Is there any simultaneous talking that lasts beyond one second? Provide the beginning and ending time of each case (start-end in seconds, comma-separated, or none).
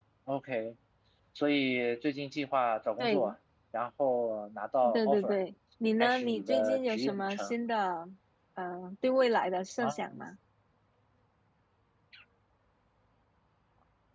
6.0-7.5